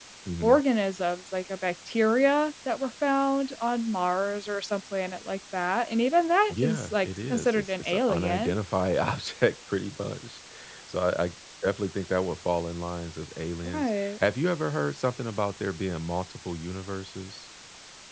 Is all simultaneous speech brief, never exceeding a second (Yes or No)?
No